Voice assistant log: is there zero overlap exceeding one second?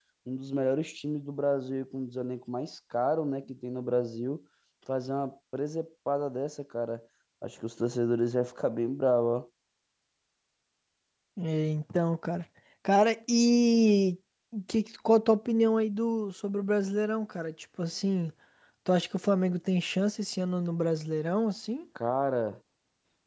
Yes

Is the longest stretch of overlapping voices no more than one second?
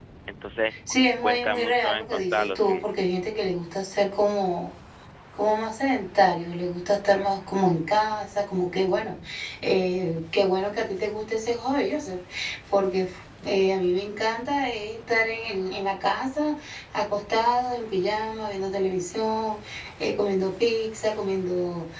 No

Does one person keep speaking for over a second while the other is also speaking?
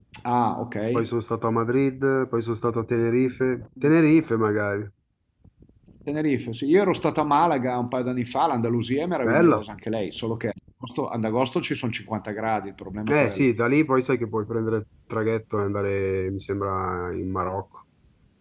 No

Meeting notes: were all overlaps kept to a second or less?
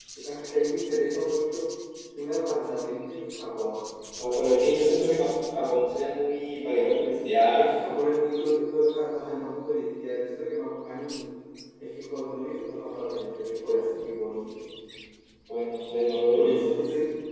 Yes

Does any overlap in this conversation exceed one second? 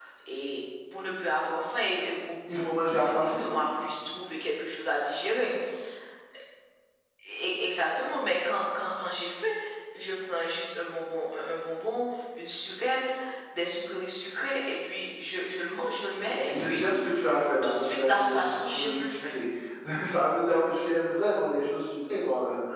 Yes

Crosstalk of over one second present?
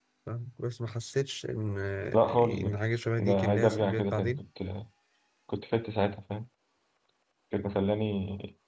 Yes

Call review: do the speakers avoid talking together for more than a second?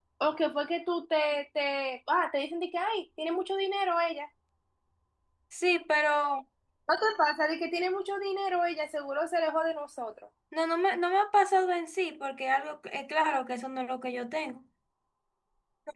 Yes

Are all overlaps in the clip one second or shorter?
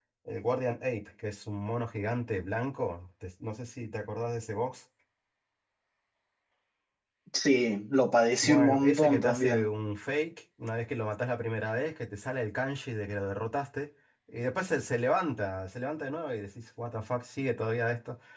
No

